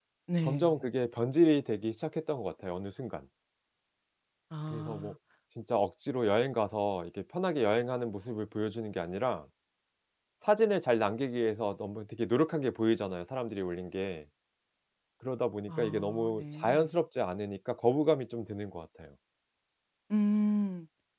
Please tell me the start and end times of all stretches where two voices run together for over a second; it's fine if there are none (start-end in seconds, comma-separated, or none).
15.7-16.9